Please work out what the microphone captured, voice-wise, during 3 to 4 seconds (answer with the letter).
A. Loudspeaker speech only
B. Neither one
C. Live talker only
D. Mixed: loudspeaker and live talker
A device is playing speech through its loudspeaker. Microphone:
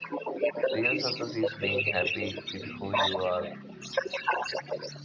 D